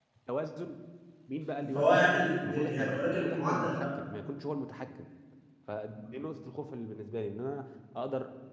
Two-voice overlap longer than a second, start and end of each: 1.7-3.9

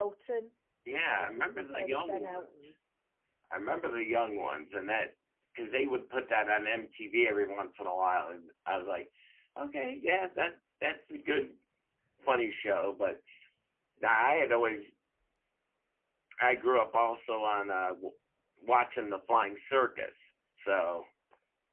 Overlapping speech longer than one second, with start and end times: 1.1-2.7

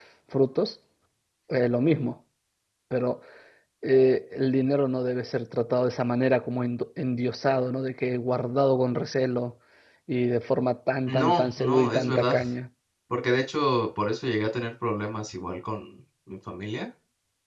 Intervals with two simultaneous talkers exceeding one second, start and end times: 11.1-12.4

